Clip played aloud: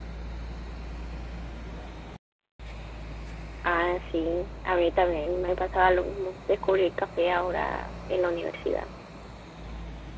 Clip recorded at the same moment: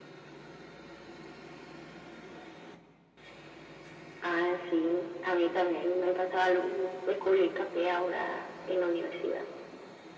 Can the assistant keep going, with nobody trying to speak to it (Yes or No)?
Yes